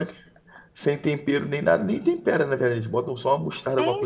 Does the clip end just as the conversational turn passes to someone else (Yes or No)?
Yes